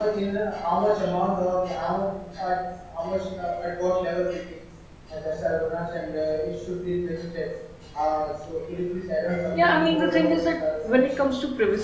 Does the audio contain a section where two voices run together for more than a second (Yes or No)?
Yes